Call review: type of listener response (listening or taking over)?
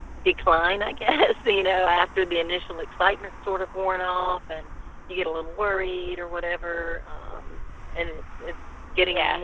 listening